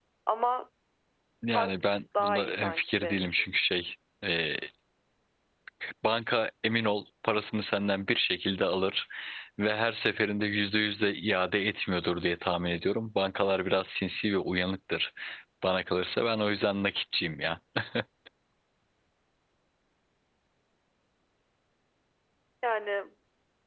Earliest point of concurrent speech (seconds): 2 s

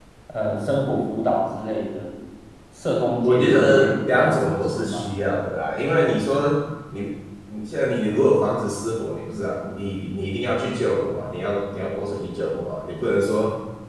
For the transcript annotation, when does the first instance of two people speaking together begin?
3 s

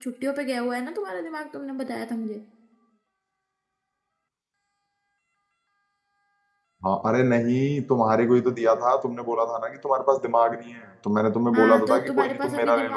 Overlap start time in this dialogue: 12 s

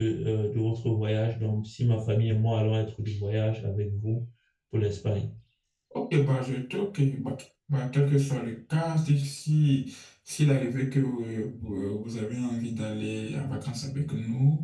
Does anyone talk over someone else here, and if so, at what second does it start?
none

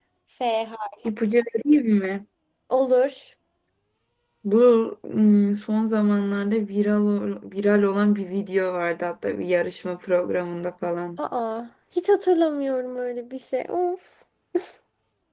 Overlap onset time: none

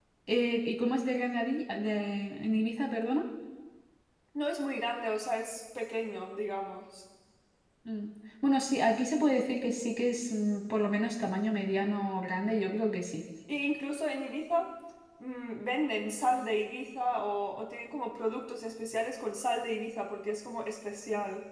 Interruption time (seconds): none

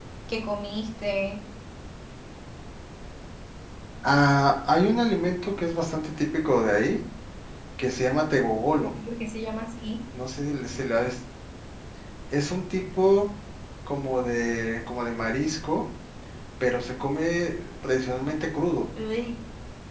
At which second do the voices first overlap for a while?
none

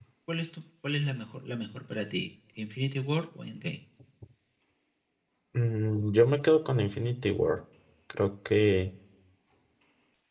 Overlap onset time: none

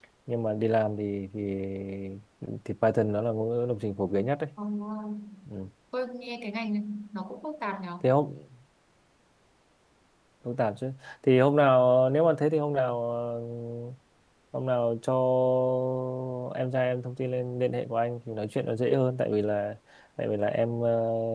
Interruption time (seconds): none

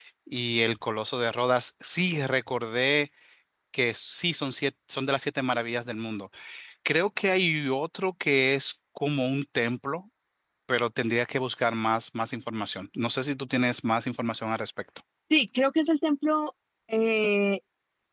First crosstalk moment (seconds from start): none

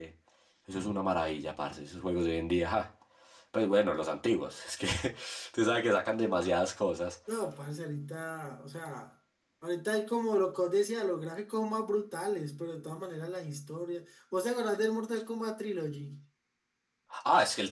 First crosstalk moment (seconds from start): none

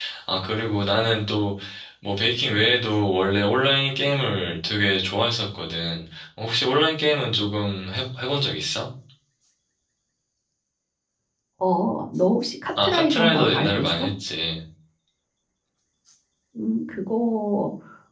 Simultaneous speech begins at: 13 s

